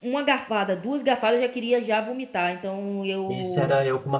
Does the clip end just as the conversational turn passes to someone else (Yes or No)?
Yes